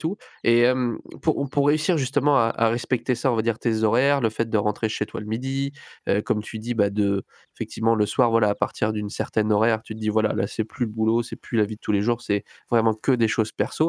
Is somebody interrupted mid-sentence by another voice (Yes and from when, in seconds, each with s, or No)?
No